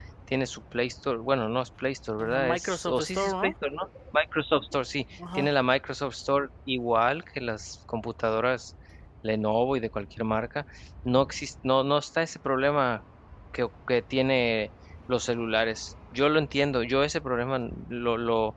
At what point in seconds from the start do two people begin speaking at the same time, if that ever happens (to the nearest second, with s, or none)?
2 s